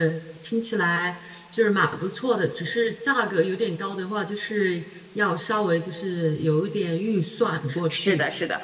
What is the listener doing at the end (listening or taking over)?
taking over